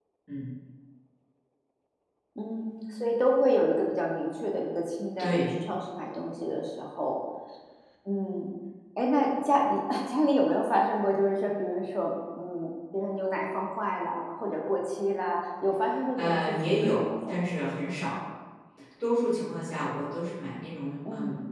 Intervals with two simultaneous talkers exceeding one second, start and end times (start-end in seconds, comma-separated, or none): 16.2-17.4